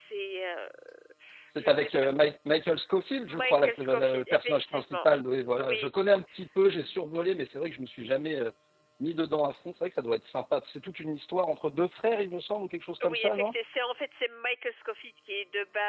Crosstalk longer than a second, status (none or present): present